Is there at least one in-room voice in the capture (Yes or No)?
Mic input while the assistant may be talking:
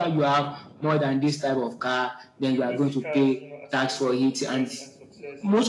Yes